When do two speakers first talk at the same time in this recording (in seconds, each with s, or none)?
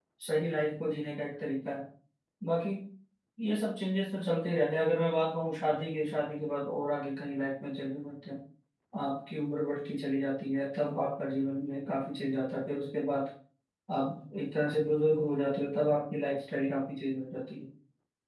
none